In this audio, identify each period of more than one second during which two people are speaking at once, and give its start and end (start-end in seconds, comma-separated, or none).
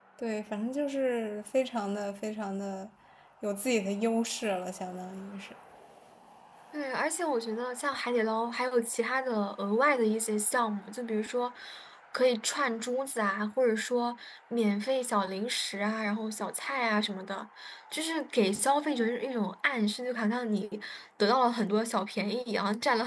none